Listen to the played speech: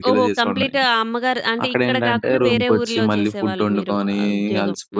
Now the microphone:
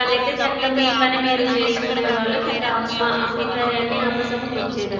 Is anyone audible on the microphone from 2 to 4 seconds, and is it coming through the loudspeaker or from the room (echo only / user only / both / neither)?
both